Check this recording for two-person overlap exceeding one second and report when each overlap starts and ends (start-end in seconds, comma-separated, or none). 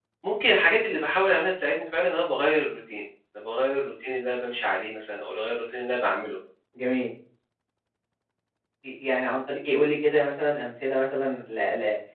none